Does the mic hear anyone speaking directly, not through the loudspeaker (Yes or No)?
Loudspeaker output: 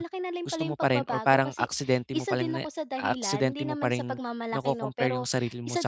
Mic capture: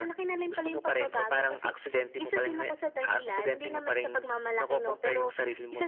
No